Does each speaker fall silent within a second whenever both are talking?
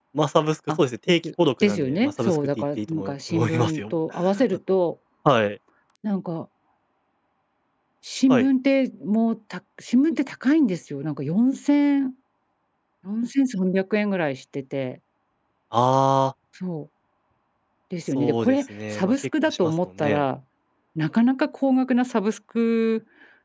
No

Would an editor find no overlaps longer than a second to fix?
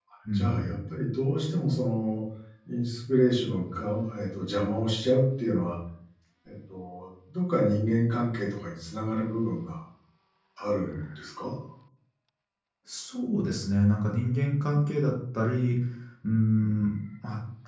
Yes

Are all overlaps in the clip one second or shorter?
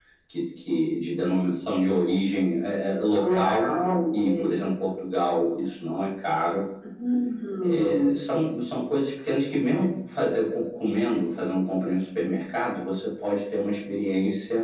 Yes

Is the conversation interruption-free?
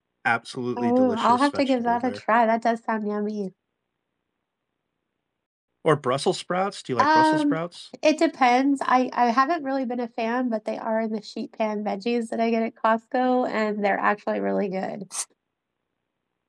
No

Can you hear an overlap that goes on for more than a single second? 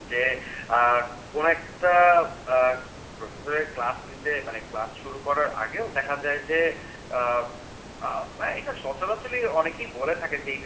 No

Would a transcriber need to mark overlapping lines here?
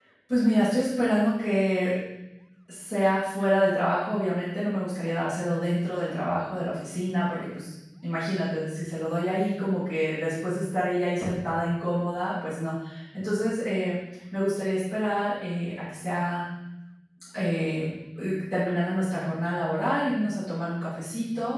No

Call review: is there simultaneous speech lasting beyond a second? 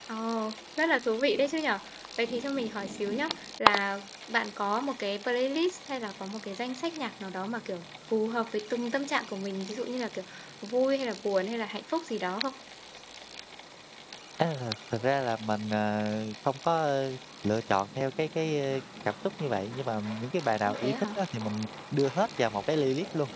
No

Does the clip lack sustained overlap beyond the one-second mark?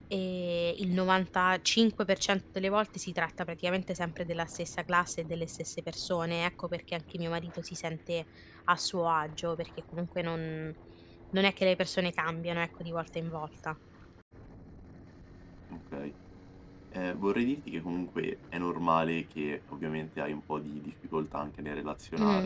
Yes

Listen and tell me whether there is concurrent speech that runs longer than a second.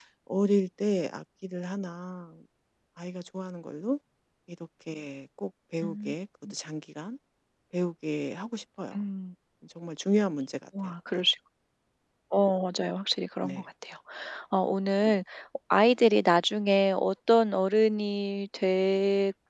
No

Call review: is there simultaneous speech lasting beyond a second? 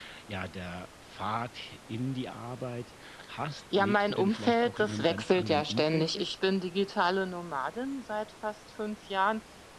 Yes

